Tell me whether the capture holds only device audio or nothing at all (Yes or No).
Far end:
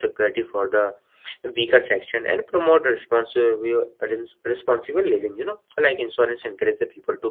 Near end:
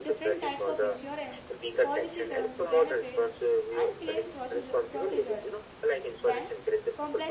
No